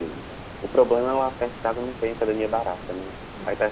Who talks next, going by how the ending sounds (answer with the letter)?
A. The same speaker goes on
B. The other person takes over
B